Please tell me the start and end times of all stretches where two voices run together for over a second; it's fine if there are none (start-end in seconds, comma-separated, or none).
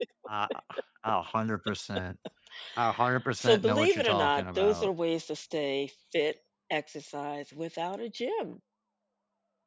3.4-4.9